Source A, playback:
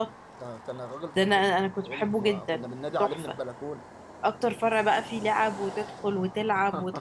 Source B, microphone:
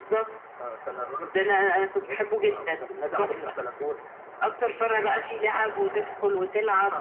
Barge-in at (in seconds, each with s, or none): none